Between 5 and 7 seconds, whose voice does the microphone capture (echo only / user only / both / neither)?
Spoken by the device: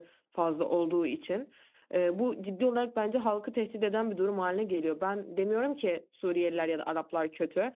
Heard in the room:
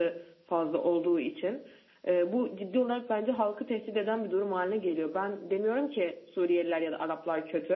echo only